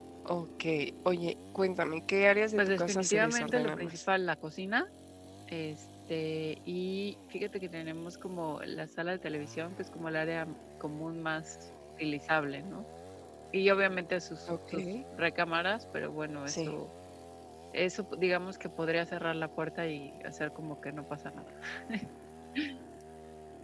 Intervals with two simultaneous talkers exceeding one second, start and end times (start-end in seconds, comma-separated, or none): 2.6-4.0